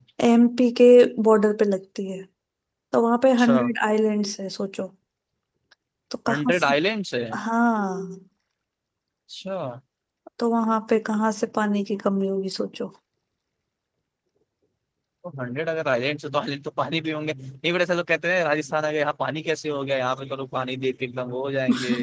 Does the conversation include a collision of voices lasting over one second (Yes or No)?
No